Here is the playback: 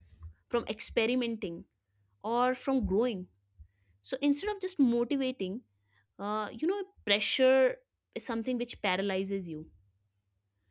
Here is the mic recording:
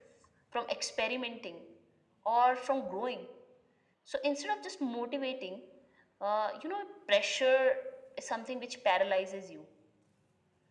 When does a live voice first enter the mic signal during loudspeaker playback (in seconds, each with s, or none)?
none